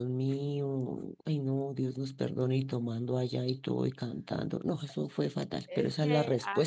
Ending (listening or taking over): taking over